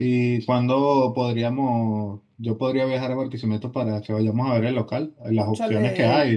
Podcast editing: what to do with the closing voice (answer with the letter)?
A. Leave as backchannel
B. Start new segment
A